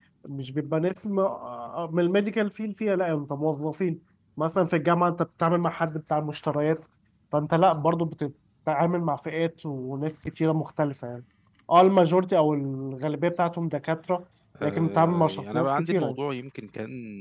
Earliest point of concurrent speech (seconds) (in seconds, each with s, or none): 14.6 s